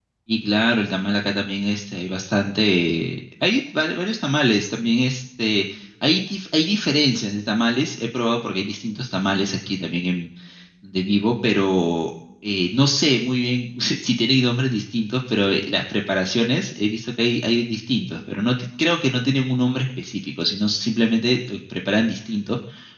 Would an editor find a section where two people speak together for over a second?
No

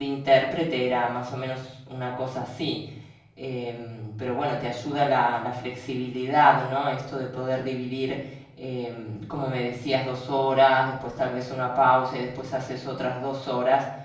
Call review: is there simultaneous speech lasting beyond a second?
No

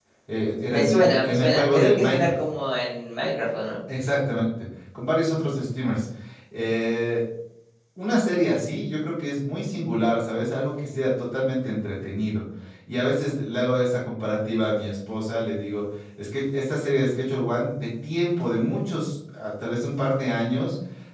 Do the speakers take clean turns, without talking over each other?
No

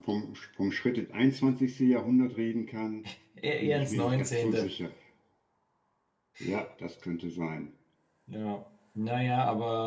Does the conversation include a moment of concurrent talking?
Yes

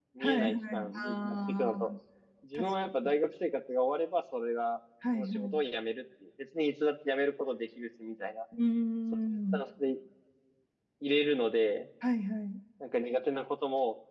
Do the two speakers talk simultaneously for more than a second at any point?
Yes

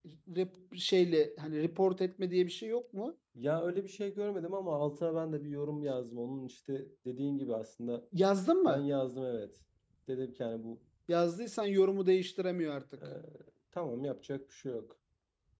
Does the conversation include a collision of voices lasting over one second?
No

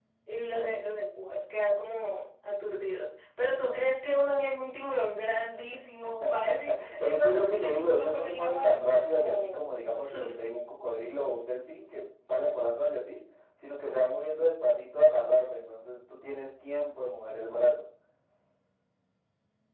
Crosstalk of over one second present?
Yes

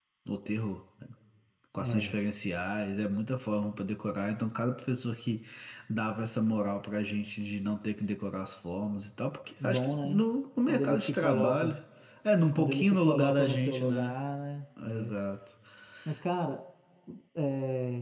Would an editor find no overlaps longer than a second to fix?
No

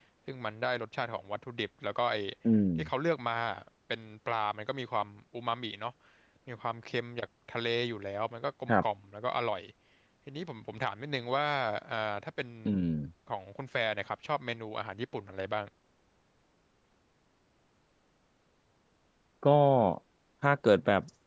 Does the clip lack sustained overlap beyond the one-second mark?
Yes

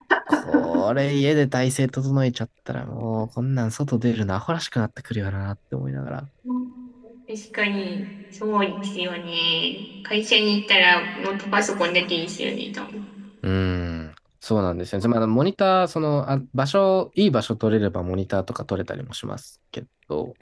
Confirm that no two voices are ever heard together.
Yes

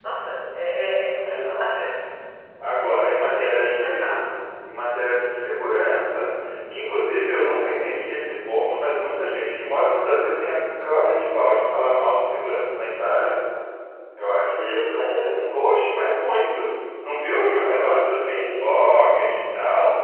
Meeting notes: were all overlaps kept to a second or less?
No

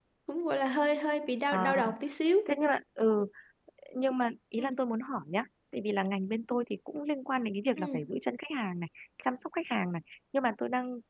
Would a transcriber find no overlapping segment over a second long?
Yes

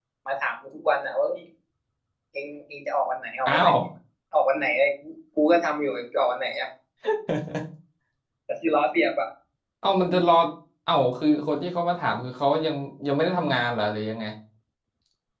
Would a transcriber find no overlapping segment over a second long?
Yes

